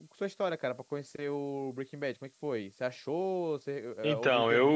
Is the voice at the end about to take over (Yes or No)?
Yes